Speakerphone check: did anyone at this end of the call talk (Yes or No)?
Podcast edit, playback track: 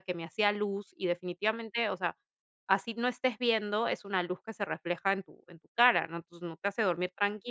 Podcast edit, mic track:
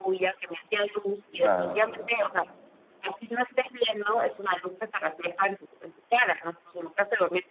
Yes